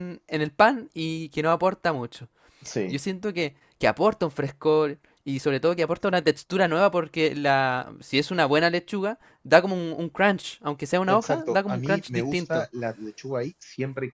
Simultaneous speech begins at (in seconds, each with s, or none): 11.1 s